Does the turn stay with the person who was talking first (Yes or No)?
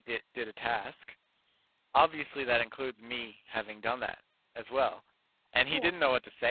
Yes